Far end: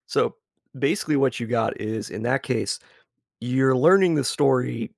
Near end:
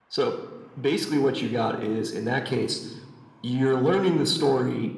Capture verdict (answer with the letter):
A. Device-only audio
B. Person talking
A